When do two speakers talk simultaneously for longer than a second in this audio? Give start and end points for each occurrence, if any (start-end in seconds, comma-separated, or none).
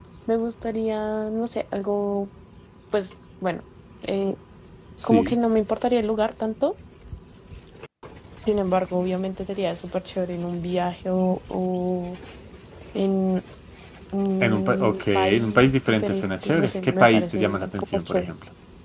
14.4-18.3